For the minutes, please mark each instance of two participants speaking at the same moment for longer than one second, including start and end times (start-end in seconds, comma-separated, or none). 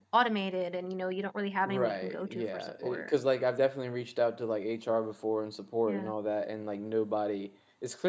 1.7-3.1